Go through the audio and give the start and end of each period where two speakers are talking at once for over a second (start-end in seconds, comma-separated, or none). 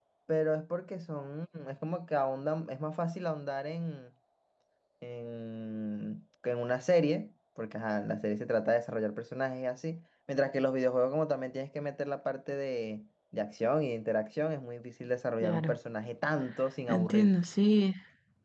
none